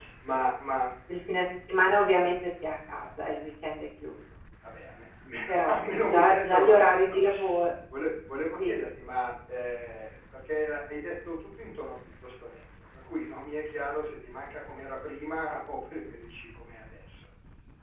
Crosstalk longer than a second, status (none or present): present